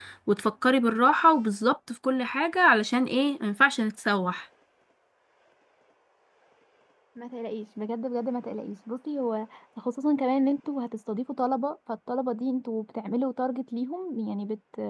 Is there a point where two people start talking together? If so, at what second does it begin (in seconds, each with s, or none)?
none